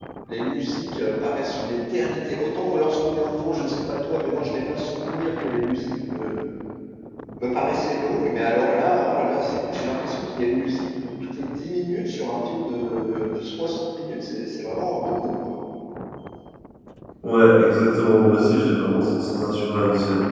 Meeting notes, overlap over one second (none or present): none